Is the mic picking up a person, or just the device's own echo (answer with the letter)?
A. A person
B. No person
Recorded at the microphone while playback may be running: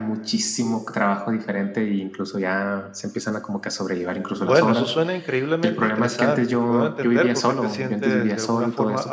A